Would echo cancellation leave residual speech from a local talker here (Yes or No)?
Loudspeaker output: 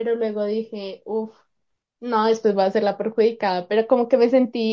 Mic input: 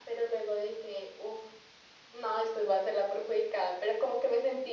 No